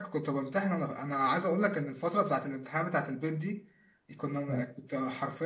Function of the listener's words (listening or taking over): listening